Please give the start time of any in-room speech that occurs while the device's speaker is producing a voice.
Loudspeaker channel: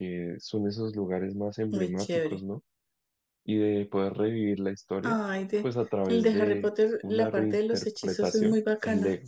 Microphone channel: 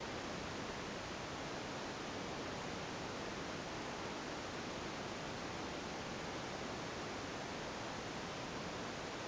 none

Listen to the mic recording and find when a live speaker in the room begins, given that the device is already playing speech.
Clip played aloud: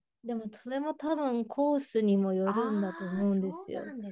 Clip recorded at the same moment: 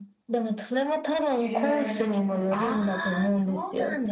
1 s

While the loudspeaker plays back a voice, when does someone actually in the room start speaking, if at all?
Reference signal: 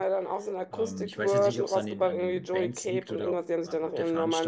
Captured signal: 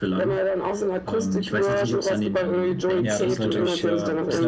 3 s

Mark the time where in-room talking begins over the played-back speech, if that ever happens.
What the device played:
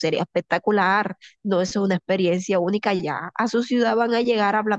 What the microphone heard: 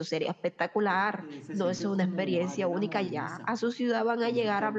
1 s

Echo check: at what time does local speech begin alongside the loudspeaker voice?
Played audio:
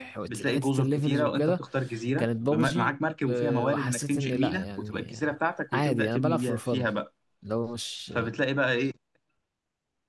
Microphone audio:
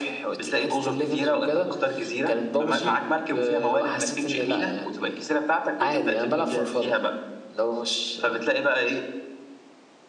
none

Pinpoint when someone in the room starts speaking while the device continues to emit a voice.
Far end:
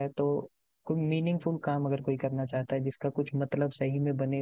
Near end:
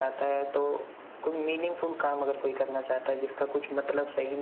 none

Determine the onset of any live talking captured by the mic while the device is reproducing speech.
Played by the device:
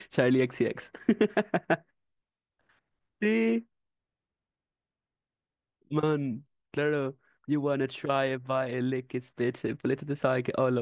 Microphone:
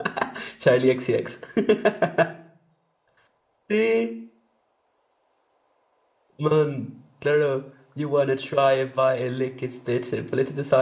none

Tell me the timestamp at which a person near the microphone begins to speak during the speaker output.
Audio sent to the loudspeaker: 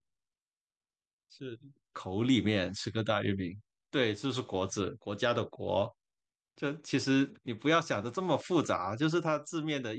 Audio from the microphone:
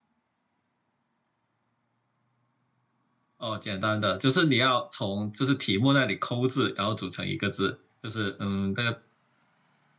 3 s

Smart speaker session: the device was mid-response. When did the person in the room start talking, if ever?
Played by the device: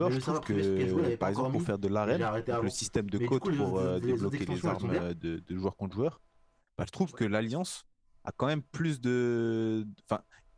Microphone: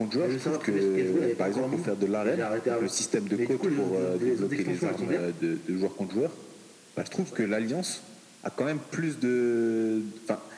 none

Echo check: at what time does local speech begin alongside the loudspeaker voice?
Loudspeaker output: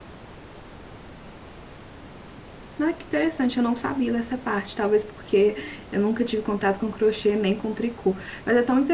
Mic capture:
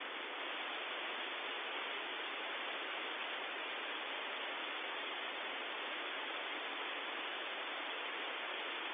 none

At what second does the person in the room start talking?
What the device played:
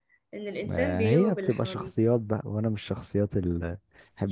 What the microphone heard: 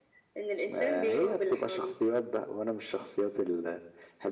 none

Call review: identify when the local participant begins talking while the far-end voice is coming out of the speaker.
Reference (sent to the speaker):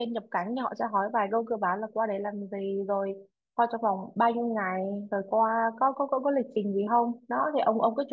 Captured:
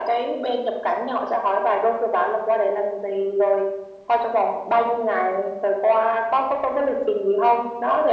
none

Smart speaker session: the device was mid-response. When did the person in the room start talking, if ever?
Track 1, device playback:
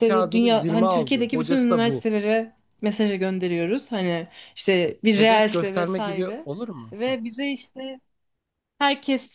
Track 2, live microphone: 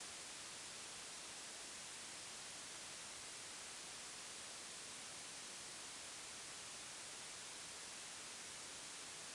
none

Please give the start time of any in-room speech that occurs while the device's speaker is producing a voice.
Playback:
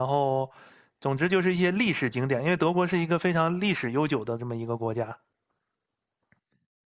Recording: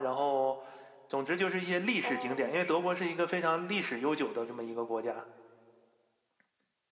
2 s

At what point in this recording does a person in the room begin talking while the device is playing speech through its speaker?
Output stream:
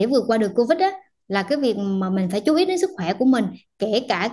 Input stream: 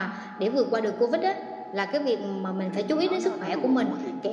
3 s

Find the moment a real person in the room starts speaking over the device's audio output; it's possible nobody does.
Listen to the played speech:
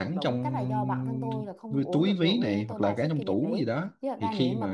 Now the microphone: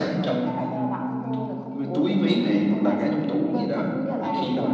4 s

